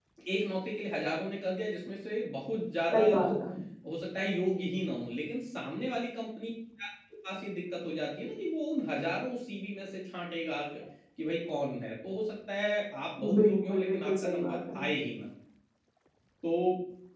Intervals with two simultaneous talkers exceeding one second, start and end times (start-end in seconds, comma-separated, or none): 13.2-14.9